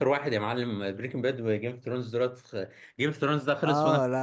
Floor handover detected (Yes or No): Yes